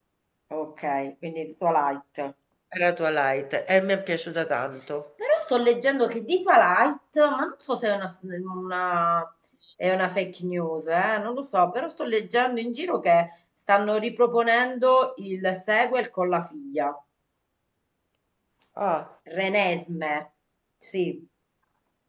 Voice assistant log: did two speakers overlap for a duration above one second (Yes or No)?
No